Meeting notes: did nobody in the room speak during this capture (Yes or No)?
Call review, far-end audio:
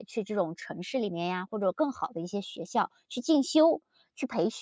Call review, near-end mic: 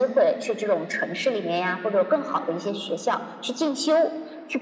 Yes